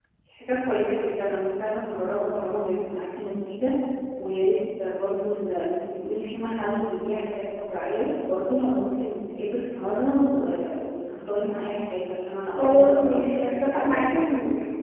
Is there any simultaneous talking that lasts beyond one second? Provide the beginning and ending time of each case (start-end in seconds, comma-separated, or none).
12.6-14.2